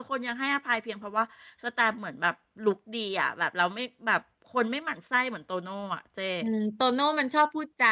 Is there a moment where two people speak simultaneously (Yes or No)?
No